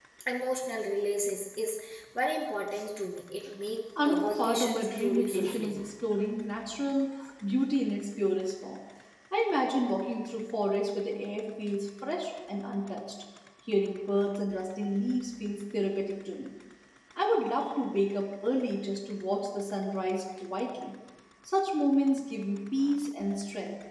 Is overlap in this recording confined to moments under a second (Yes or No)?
No